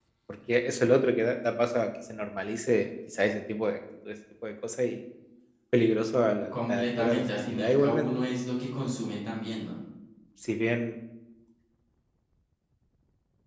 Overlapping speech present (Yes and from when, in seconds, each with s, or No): Yes, from 6.5 s